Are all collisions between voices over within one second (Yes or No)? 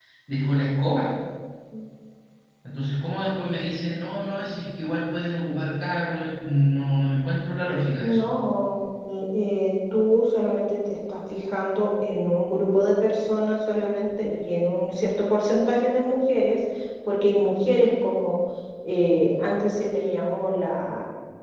Yes